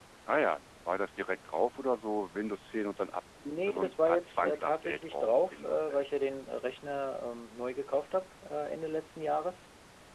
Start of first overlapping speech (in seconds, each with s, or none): 3.7 s